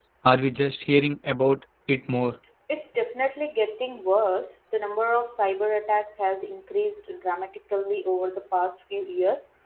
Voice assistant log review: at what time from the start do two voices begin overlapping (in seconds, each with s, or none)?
none